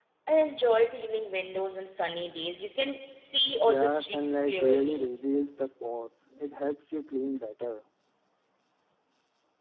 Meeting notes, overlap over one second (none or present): present